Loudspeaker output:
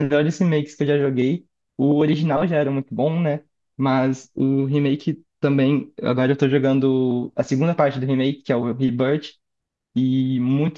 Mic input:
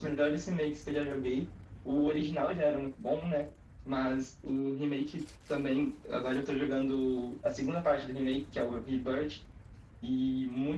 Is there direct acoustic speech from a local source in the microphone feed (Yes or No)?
No